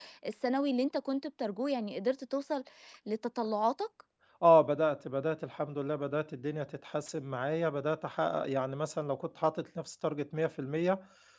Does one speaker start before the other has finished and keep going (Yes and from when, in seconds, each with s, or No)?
No